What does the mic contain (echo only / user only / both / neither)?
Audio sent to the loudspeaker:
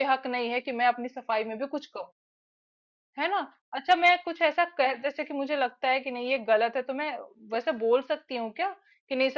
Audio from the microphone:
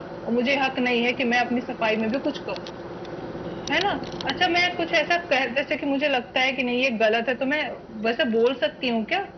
echo only